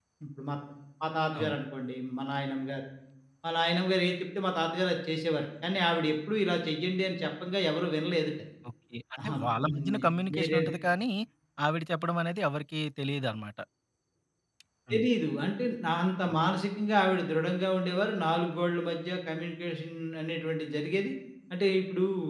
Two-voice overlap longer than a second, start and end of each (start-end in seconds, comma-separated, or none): 9.2-10.6